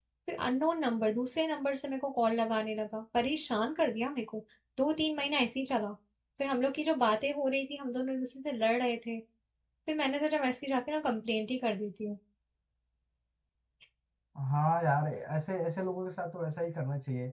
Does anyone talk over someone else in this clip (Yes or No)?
No